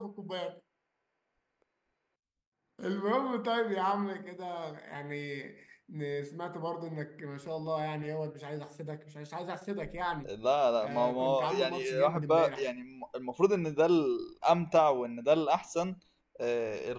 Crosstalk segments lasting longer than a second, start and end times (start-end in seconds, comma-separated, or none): 10.8-12.7